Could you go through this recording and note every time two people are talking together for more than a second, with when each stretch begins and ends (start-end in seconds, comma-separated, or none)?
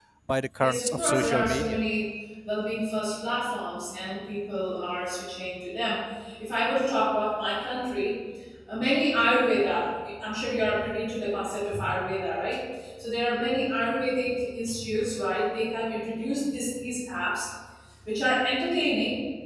0.6-1.8